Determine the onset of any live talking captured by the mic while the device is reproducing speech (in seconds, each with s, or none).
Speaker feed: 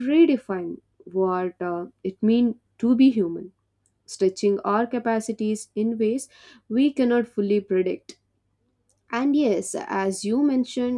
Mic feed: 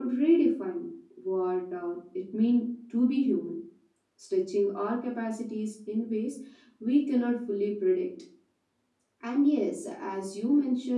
none